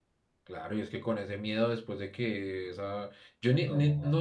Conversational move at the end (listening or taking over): listening